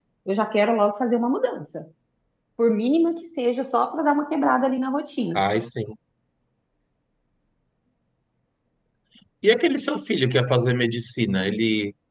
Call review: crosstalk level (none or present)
none